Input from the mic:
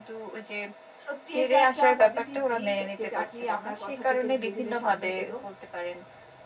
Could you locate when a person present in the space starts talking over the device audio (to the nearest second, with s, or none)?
1 s